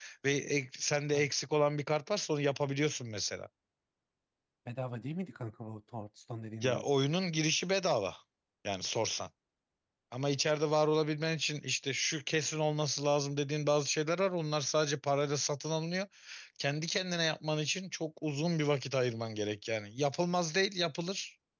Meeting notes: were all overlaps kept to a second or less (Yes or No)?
Yes